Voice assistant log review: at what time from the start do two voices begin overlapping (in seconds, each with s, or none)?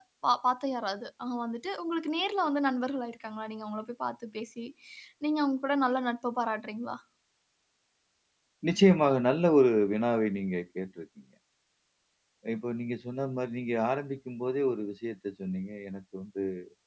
none